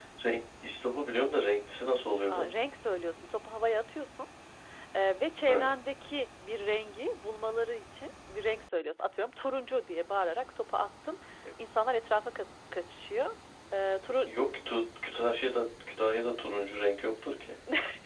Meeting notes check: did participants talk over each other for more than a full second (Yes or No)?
No